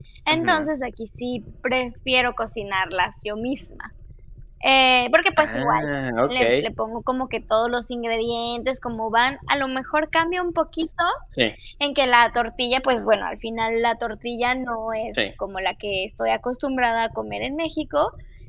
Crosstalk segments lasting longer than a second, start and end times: none

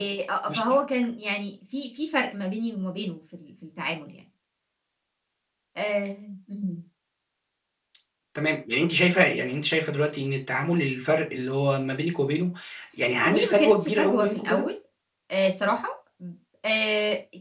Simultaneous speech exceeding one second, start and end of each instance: 13.3-14.7

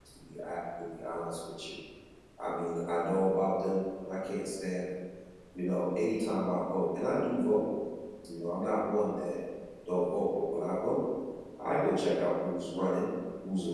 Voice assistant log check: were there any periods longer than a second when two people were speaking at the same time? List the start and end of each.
none

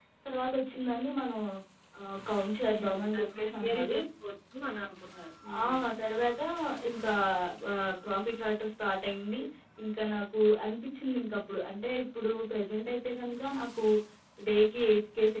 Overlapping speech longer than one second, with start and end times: 2.7-4.0

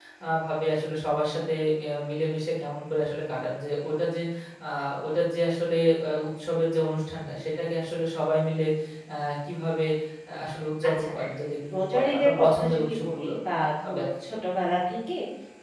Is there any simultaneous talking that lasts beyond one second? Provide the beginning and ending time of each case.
11.7-13.3

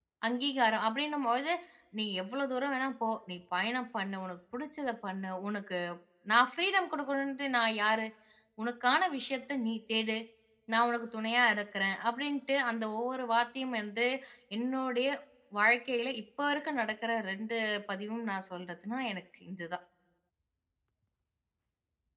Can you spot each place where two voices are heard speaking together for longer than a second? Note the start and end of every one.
none

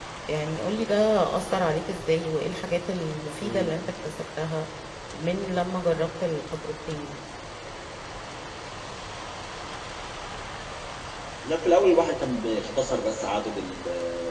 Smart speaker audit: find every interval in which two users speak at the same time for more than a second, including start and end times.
none

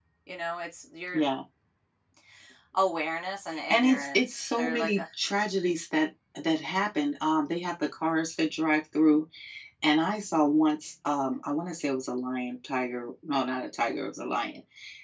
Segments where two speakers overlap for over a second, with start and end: 3.7-5.0

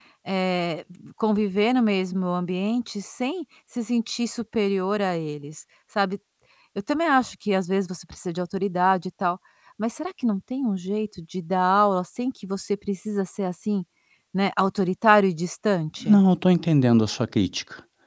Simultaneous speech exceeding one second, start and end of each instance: none

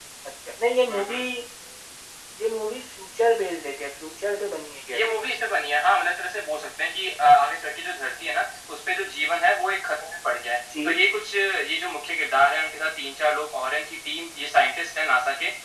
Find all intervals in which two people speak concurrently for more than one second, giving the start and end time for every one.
none

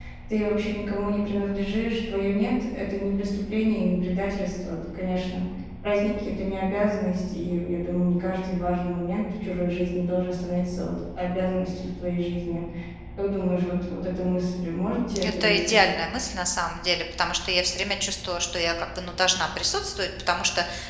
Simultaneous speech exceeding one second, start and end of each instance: none

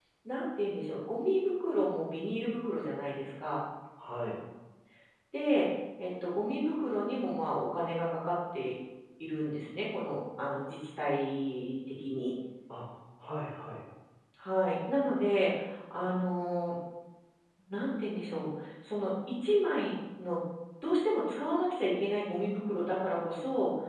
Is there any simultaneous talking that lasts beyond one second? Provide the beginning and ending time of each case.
none

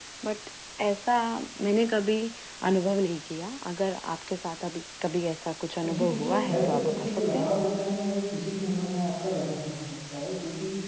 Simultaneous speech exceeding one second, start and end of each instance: 5.8-7.5

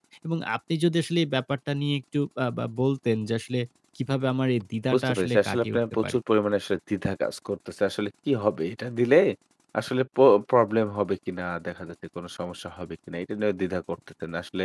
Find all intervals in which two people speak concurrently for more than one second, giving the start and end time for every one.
4.9-6.2

